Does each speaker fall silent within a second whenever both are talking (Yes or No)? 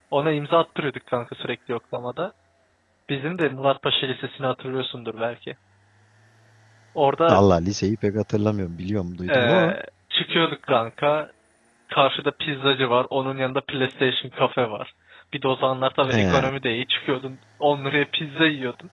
Yes